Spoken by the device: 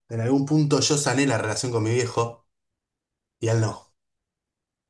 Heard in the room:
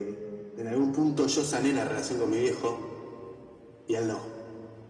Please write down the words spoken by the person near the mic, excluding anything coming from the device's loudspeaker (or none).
none